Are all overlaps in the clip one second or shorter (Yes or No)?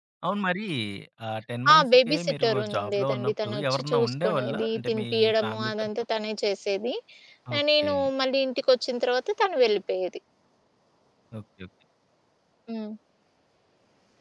No